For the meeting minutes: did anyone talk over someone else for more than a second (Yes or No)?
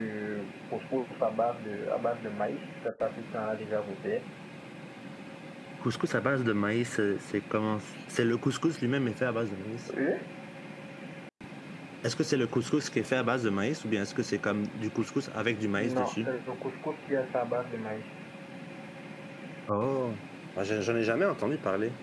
No